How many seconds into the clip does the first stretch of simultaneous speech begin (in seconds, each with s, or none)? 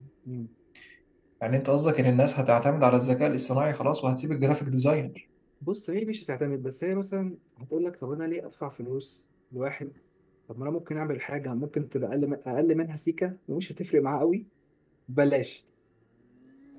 none